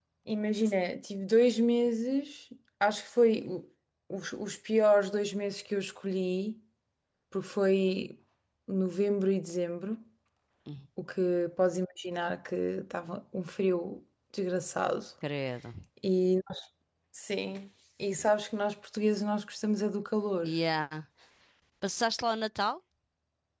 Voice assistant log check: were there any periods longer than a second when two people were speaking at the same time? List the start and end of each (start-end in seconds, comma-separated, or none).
none